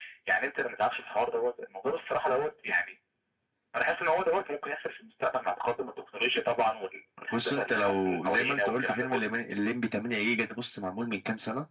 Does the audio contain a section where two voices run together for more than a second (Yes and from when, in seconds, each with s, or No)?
Yes, from 7.3 s